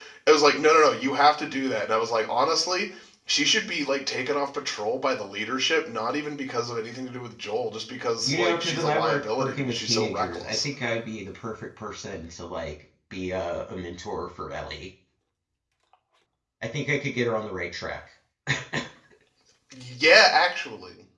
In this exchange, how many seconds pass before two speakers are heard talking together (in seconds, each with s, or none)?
8.2 s